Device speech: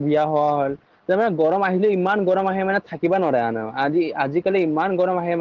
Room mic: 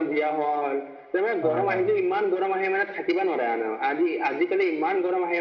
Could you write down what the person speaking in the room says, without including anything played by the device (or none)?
হয় হয়